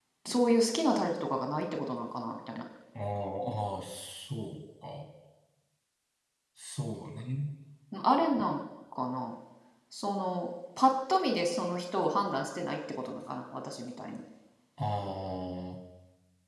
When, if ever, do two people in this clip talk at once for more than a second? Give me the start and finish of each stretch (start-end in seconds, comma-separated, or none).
none